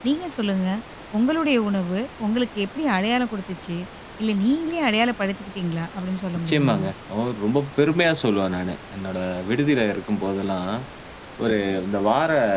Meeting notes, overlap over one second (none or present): none